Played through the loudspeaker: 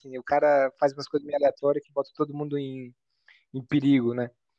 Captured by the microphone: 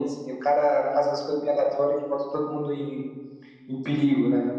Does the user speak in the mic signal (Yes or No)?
No